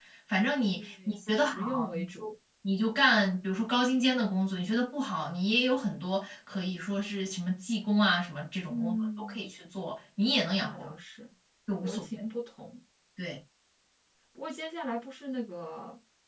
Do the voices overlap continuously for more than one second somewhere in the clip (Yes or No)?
Yes